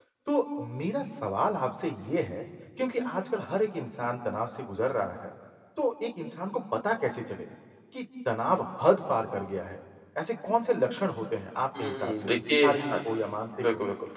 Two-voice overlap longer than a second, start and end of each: 11.8-13.1

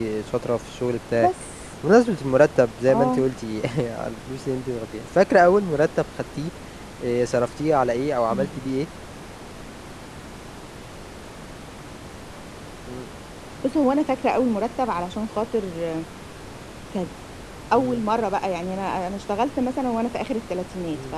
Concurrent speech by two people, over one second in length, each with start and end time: none

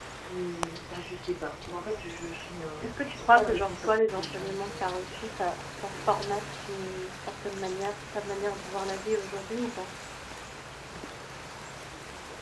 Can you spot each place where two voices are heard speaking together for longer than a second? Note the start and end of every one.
2.8-4.9

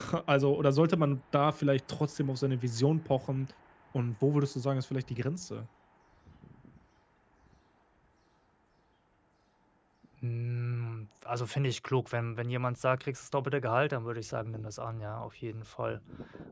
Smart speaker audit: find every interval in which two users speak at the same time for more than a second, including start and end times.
none

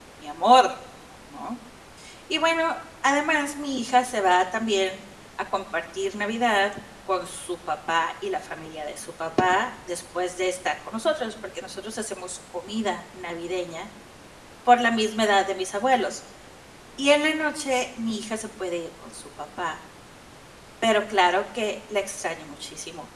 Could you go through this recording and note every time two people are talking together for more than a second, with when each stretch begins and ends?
none

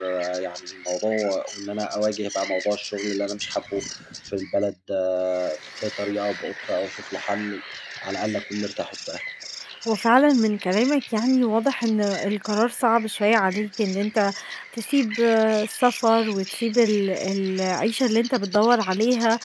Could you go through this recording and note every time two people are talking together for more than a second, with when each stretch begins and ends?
none

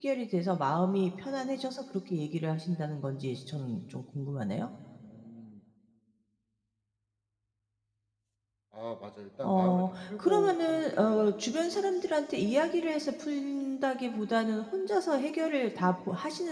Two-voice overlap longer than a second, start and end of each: 9.4-11.5

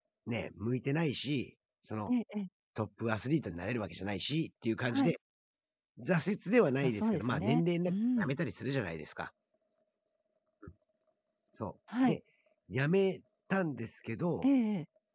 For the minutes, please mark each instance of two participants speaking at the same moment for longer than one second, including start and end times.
6.8-8.4

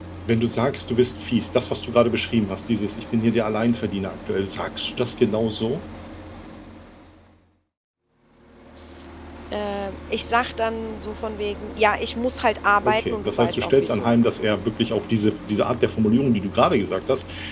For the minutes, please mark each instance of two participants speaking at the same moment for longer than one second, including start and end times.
12.8-14.1

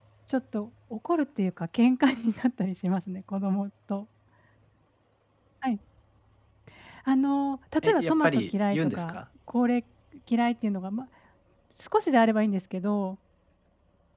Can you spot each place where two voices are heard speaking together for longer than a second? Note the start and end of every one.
7.8-9.2

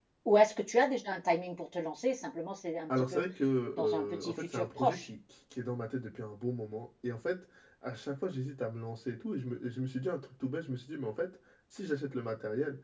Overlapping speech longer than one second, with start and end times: 3.7-5.1

